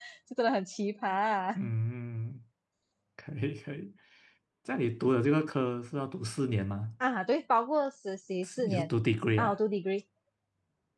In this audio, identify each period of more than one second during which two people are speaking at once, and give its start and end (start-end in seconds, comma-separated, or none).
none